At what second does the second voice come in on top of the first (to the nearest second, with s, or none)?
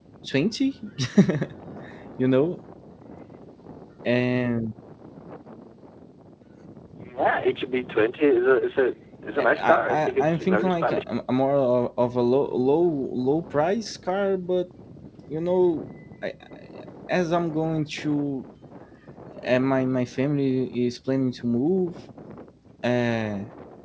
9 s